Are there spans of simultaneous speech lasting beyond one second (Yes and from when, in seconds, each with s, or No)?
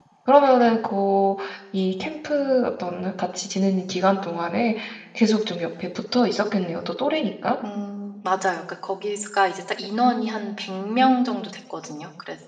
No